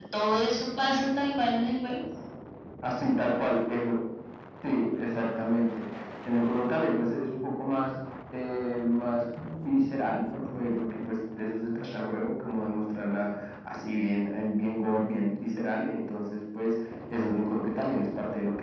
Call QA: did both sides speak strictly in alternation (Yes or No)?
Yes